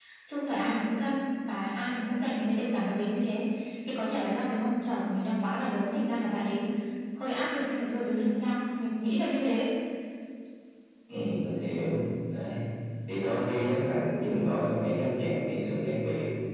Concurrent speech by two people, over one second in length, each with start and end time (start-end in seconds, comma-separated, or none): none